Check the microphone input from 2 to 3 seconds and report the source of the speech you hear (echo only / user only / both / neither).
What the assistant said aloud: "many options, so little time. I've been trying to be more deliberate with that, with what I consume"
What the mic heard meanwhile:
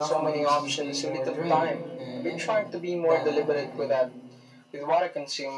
both